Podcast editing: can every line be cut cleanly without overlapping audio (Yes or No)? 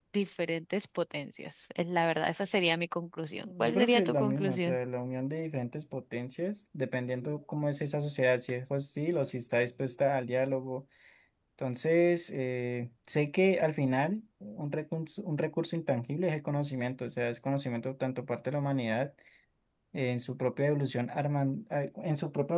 No